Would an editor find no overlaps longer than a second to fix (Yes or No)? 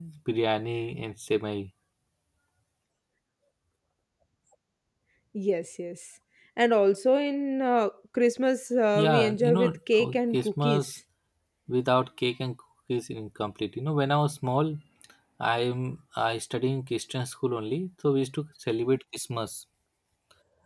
No